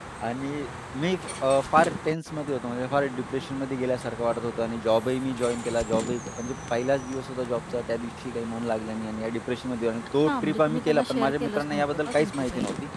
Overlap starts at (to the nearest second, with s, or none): 10 s